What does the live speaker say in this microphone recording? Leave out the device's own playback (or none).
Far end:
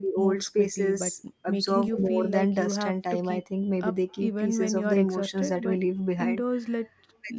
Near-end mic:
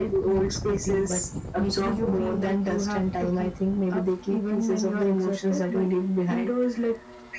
none